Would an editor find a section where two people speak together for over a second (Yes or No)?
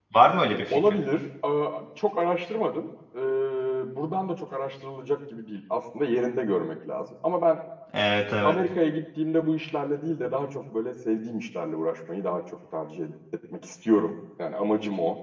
No